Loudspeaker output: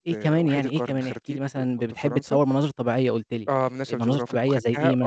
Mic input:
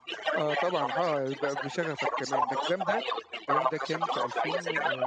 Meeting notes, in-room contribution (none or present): present